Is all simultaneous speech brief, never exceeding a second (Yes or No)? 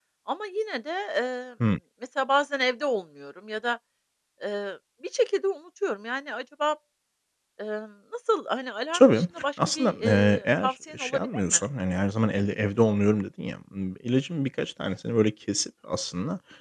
No